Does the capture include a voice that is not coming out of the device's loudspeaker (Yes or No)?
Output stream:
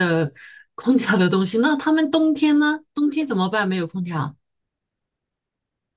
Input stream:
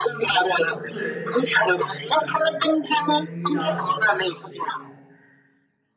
Yes